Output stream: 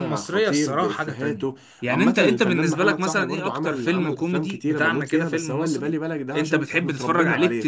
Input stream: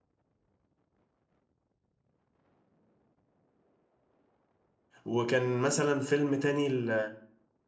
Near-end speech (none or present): present